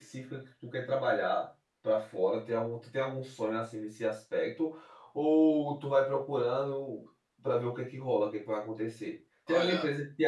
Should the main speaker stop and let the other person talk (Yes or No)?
No